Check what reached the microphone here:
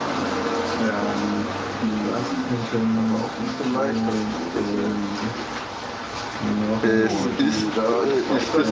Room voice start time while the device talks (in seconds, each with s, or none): 6.8 s